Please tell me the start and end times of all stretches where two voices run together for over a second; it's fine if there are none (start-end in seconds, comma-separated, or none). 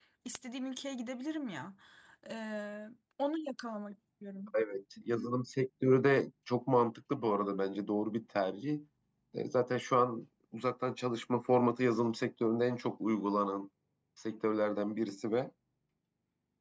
none